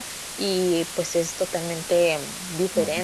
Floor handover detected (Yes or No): No